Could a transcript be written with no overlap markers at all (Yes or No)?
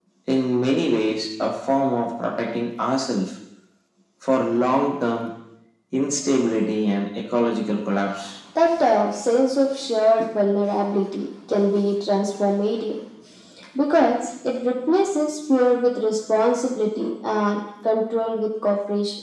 Yes